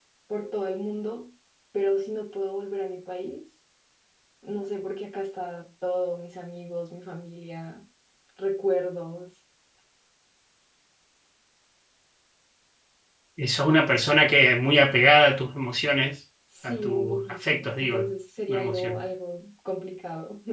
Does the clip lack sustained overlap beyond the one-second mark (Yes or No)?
No